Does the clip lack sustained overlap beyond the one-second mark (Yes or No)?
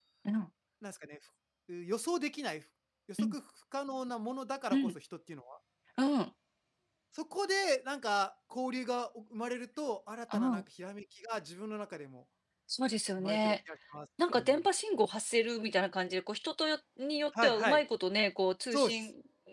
Yes